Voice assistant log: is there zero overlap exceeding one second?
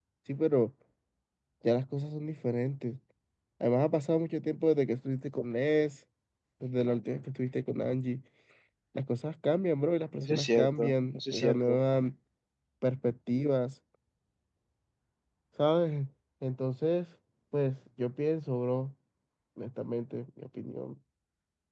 No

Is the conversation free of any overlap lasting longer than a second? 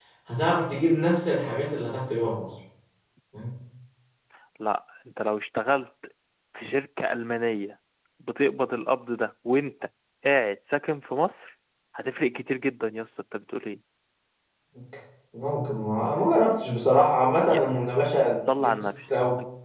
Yes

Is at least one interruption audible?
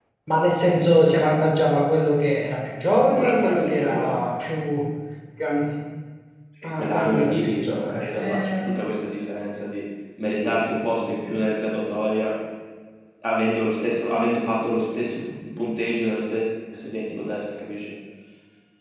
Yes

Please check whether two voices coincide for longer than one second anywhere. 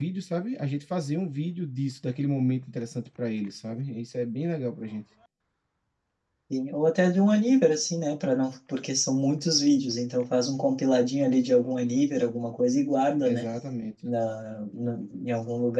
No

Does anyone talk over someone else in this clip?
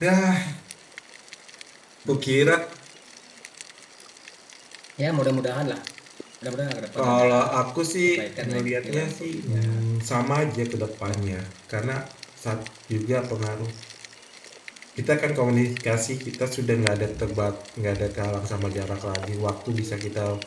Yes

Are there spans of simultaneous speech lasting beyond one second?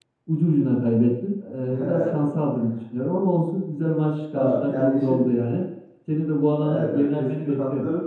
Yes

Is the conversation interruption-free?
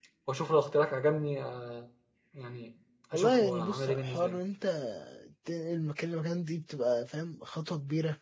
No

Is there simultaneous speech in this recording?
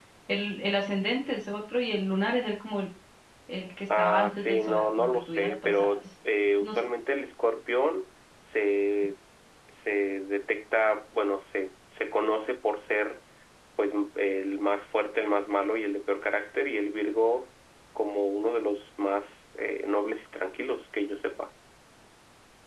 Yes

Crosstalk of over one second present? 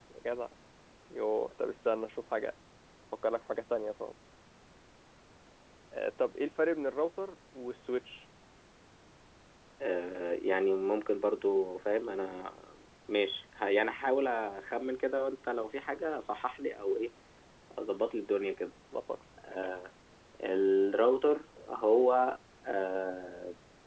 No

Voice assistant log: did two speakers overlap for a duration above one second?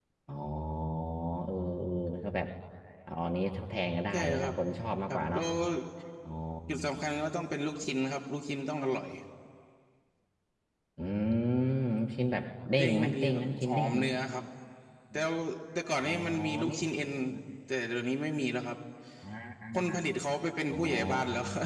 Yes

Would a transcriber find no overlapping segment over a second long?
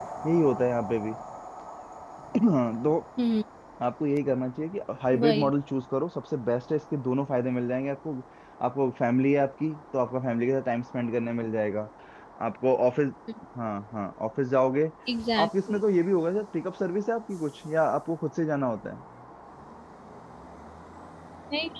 Yes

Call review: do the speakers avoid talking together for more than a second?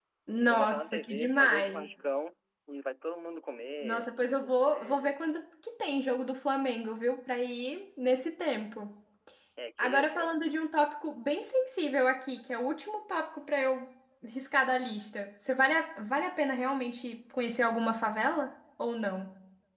No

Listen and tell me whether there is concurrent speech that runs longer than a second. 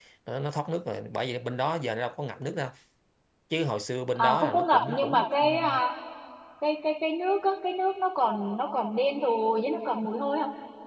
Yes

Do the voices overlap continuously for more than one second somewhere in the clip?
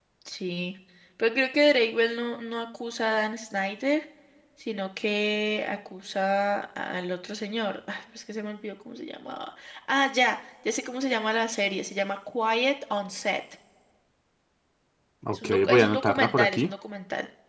Yes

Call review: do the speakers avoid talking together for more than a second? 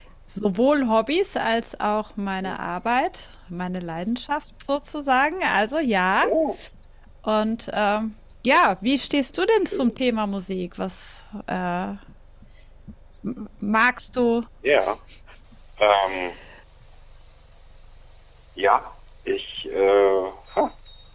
Yes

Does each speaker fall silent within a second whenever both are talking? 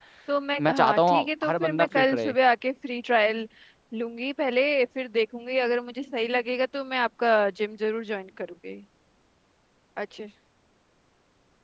No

